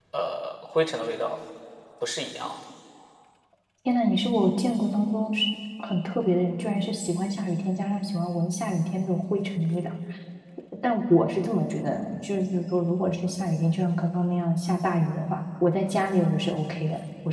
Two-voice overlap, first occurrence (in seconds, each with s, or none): none